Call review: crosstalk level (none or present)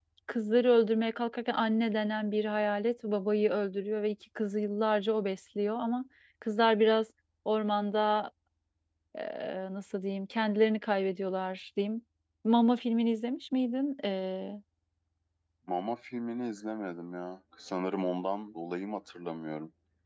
none